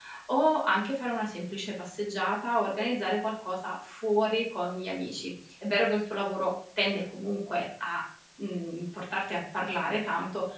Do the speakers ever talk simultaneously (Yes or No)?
No